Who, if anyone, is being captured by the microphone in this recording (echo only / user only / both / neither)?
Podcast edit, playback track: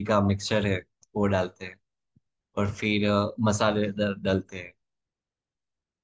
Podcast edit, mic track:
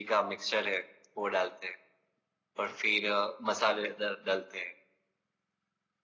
echo only